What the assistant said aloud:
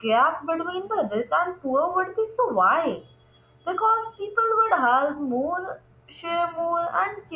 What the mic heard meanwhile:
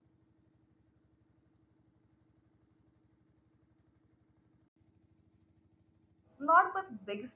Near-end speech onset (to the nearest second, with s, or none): 6 s